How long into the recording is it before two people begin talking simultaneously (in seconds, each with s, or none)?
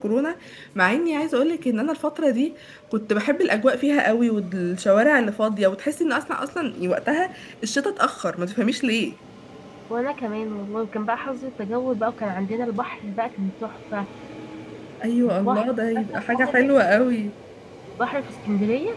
15.3 s